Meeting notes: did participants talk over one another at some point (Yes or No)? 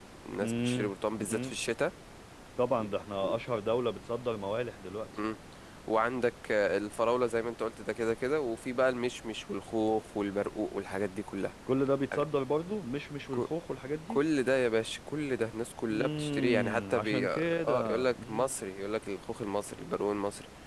Yes